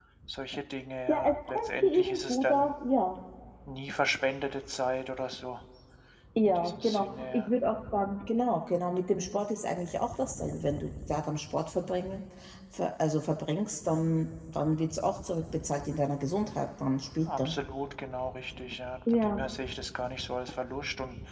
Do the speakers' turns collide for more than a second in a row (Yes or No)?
Yes